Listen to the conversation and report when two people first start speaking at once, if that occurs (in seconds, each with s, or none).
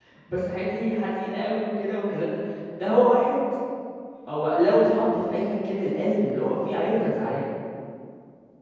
none